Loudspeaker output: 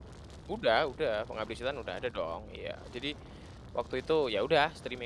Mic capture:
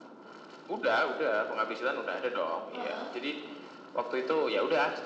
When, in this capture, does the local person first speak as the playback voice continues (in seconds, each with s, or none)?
2.7 s